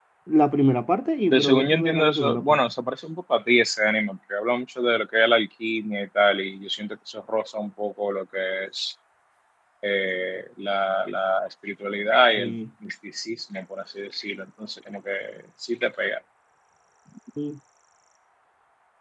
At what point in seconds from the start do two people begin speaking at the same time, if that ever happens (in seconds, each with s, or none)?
1.3 s